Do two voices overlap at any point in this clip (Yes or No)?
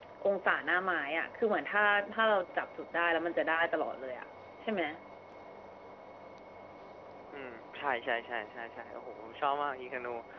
No